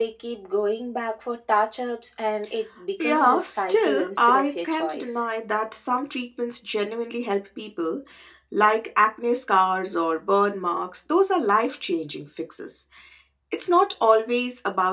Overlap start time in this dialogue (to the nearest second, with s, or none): 3 s